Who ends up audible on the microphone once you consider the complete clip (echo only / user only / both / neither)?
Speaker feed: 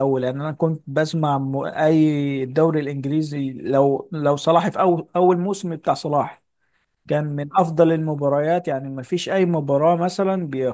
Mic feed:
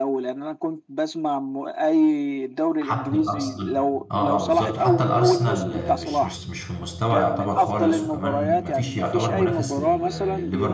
both